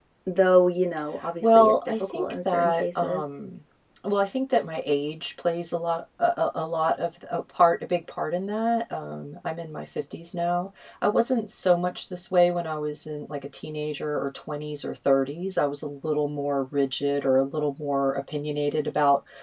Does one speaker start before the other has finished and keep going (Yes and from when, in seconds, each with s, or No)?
Yes, from 1.2 s